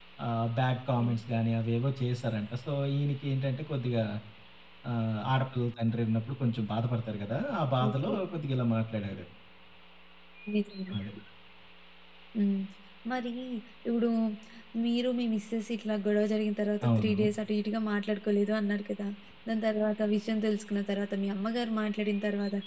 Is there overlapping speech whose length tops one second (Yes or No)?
No